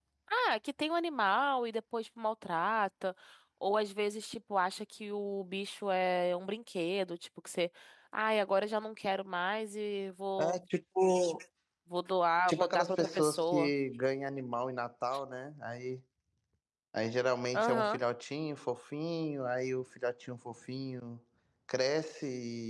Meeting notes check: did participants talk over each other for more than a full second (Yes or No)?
Yes